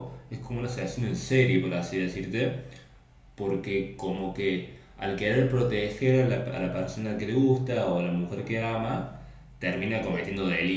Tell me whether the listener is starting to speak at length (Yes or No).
No